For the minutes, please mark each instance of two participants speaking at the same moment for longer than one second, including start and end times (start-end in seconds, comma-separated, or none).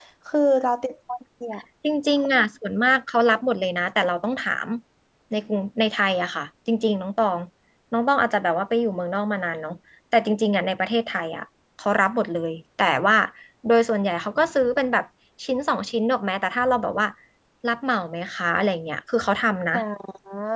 none